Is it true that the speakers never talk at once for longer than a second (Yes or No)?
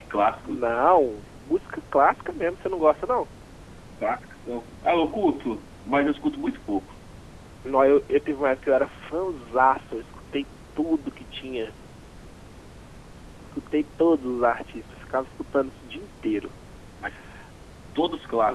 Yes